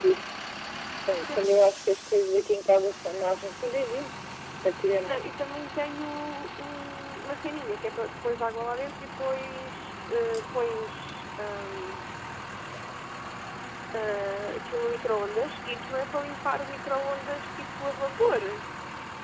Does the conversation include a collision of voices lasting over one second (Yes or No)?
No